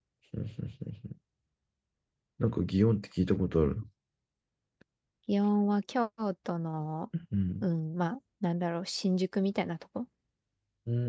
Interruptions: none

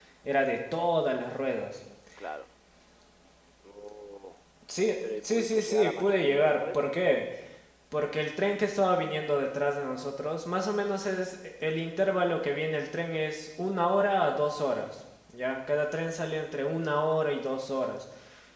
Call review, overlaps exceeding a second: present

